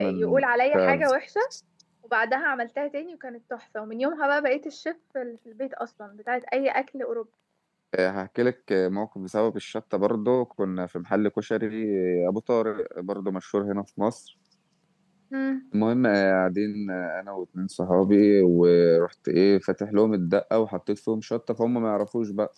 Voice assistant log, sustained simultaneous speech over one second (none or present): none